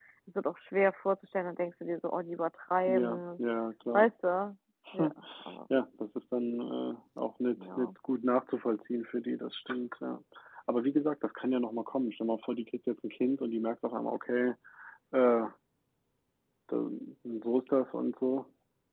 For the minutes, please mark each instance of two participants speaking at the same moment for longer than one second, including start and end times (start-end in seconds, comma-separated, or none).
none